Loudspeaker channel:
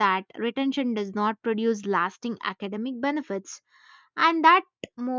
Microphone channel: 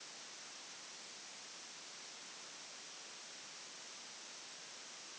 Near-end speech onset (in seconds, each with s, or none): none